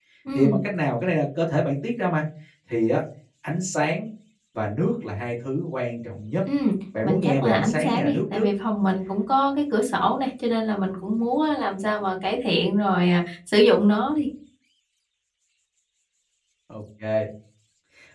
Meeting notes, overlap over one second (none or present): present